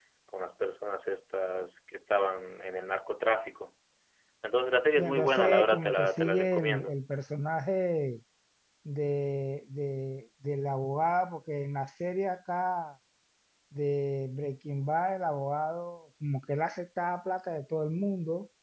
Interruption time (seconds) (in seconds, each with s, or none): 5.0 s